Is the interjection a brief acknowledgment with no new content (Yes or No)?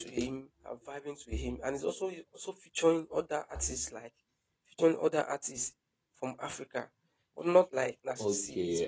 No